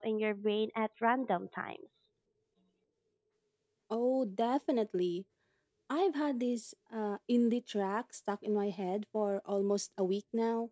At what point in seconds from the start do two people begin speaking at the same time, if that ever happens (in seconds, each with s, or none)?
none